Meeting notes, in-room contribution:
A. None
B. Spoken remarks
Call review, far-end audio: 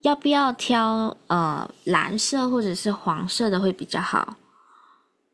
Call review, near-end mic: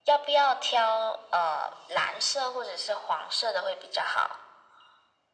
A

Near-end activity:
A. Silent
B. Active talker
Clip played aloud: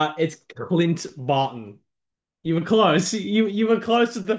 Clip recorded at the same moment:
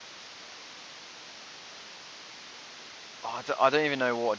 B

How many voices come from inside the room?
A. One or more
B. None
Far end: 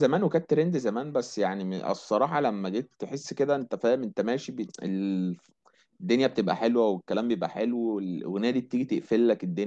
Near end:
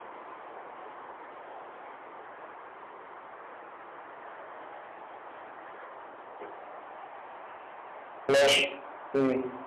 A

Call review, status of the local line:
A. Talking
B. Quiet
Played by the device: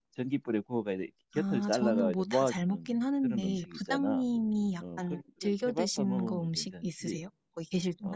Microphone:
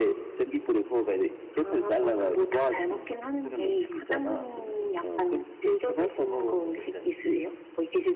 B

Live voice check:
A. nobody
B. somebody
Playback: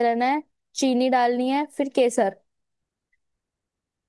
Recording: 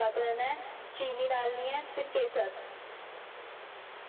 A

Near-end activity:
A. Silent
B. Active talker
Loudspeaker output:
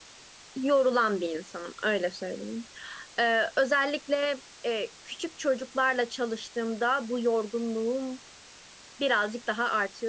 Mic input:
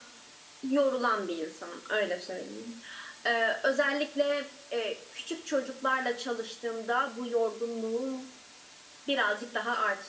A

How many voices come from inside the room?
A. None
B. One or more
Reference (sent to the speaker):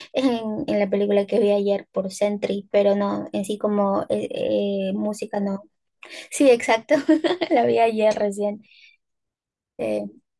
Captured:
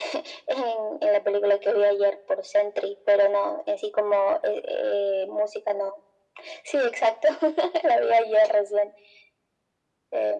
A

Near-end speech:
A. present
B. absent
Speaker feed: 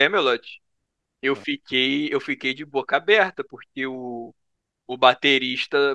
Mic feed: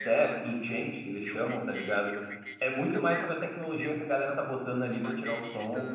A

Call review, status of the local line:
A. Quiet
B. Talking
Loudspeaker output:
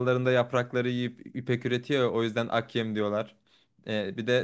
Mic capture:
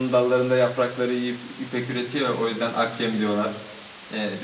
A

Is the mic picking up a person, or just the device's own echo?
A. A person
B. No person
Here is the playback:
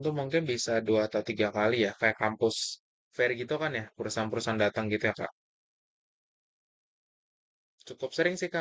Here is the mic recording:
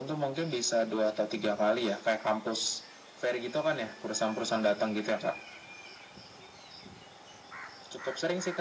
B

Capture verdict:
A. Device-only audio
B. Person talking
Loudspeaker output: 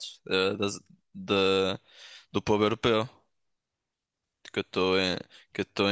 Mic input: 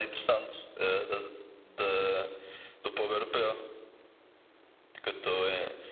A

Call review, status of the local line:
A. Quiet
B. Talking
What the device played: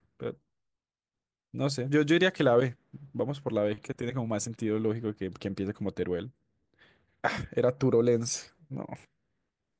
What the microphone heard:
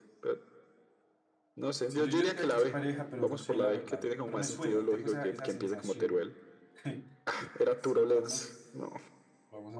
B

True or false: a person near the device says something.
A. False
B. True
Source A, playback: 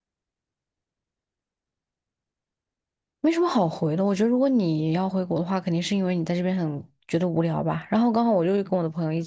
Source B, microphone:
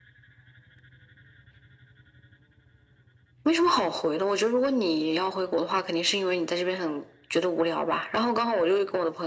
A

